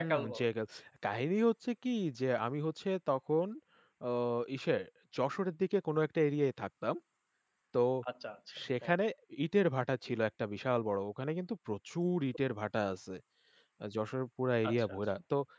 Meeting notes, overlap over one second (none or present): none